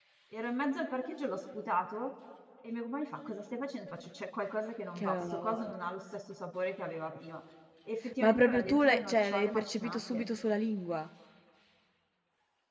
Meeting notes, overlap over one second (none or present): present